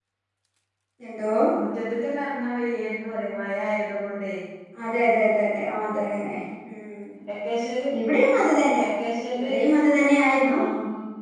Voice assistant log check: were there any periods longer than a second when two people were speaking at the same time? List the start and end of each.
none

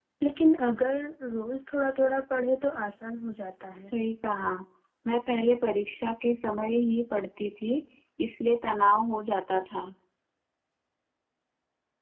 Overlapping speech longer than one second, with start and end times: none

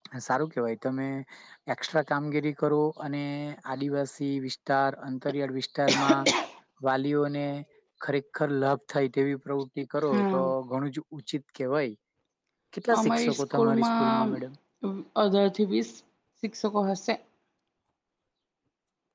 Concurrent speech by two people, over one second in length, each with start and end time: 13.0-14.3

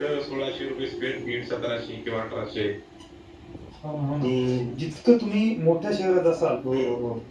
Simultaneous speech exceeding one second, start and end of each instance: none

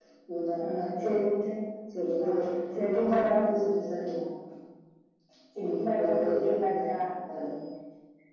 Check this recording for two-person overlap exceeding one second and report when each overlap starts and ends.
2.3-3.7, 5.6-7.0

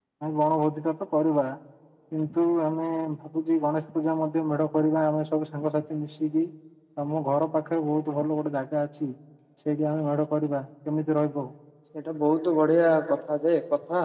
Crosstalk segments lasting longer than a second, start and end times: none

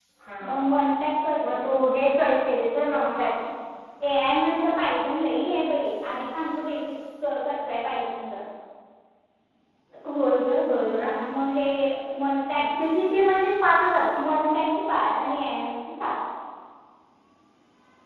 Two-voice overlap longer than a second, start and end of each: none

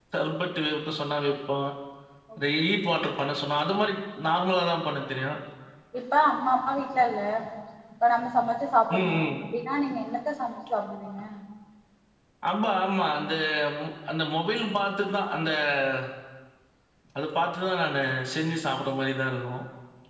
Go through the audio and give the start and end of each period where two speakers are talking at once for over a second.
none

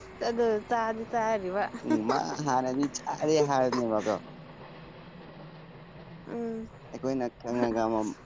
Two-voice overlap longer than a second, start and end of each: none

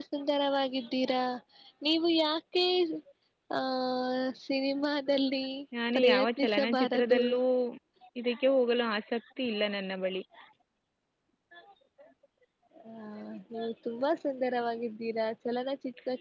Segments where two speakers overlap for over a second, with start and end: 6.0-7.2

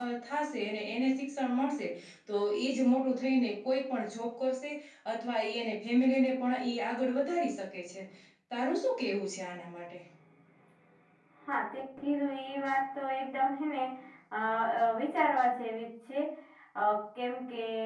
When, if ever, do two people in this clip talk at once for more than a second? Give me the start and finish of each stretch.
none

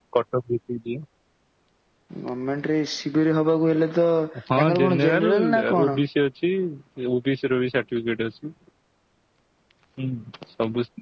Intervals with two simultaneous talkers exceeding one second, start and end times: 4.6-6.0

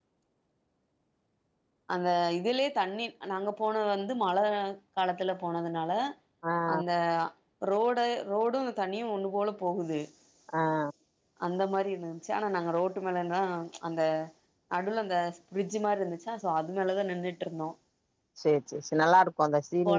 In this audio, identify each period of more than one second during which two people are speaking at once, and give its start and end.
none

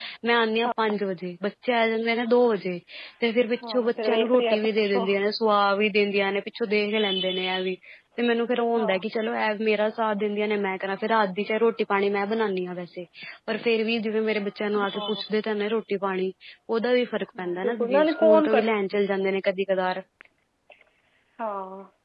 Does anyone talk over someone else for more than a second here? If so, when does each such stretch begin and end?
3.7-5.0, 17.4-18.6

